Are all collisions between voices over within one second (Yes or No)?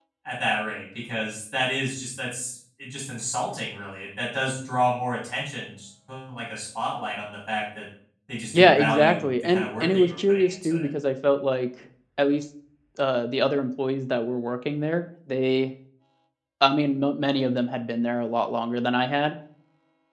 No